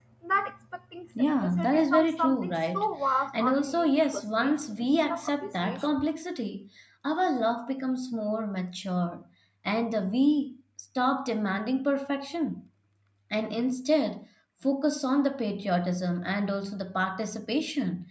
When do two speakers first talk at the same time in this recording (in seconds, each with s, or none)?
1.2 s